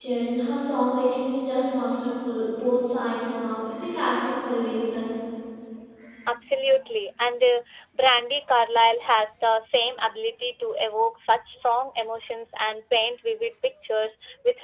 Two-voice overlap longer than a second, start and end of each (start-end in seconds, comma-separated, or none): none